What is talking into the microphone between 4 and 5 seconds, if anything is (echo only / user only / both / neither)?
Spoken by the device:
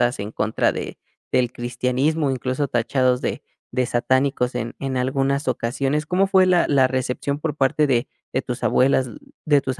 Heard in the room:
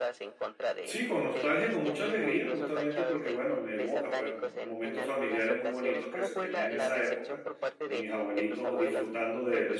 both